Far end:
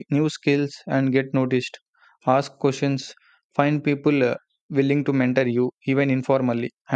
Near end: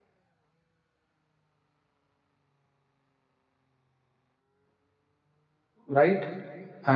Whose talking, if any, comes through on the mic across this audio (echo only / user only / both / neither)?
user only